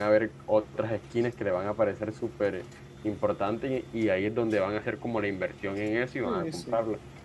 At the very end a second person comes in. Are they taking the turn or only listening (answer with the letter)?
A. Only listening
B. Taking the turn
B